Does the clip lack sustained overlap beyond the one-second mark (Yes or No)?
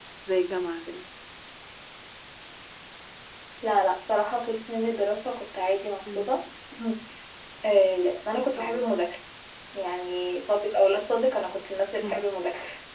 Yes